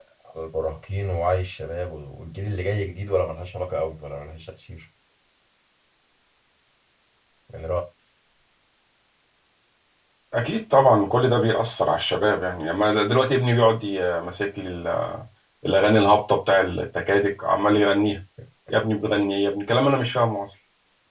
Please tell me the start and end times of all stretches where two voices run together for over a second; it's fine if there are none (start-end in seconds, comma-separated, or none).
none